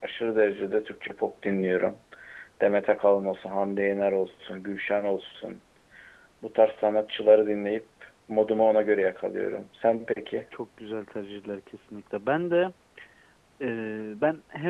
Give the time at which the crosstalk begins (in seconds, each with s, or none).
none